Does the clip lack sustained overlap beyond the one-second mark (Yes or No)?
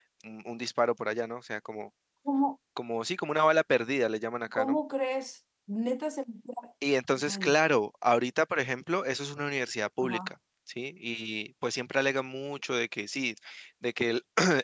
Yes